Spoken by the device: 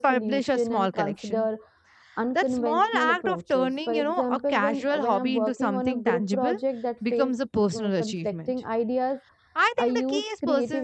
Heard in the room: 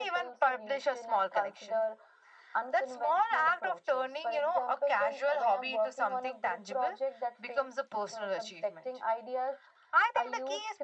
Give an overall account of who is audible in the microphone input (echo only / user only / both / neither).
echo only